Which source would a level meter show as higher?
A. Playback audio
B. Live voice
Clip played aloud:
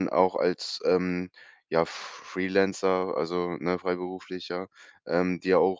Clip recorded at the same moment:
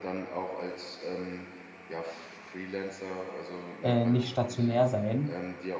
B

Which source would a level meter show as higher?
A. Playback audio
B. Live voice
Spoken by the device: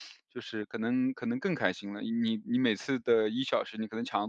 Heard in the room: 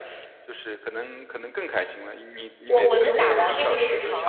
B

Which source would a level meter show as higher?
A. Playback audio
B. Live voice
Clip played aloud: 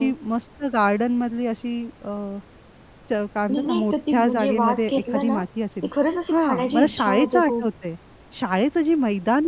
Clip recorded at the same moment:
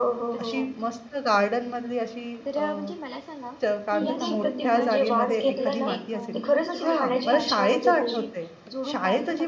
A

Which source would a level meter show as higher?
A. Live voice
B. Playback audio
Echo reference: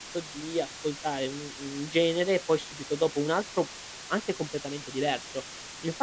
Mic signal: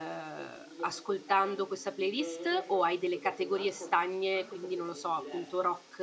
A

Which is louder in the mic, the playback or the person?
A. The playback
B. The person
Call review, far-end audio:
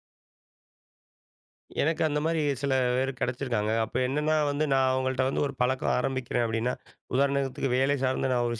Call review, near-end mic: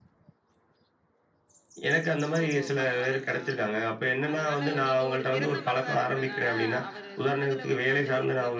A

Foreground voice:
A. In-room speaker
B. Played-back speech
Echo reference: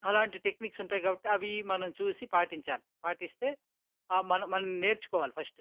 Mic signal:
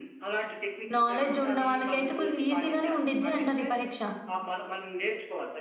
A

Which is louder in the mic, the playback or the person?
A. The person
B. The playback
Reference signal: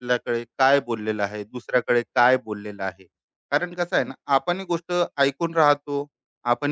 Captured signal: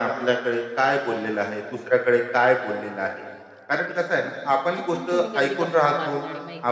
B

